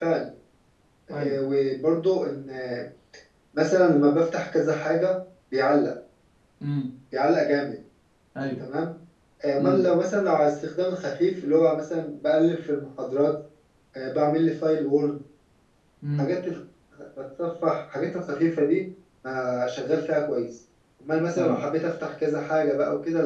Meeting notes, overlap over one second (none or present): none